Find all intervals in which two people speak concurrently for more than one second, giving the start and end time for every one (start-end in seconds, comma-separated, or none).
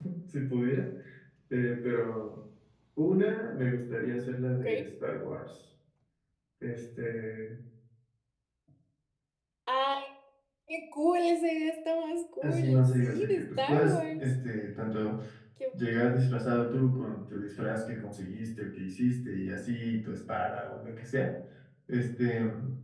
12.4-14.3